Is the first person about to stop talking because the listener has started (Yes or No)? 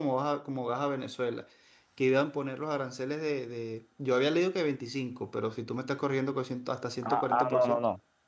Yes